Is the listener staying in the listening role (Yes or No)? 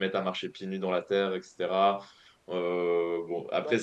Yes